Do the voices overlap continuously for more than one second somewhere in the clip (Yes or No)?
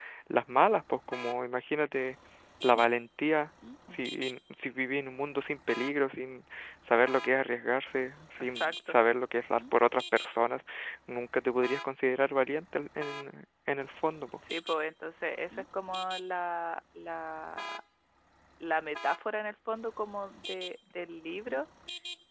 No